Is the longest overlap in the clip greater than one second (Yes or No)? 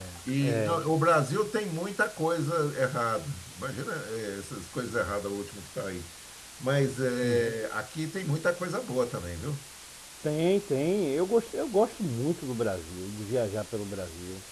No